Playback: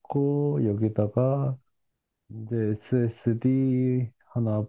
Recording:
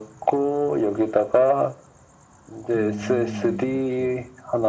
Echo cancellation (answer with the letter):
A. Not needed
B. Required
B